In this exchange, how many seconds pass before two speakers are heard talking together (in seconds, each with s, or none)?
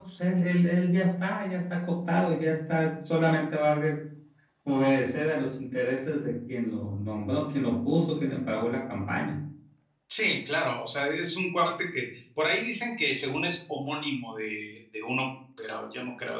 none